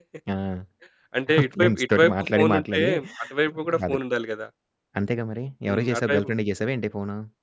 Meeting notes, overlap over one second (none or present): present